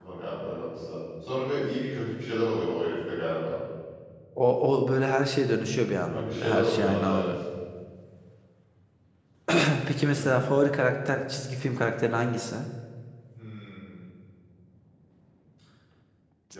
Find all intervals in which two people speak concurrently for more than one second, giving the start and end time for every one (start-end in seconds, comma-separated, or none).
6.0-7.3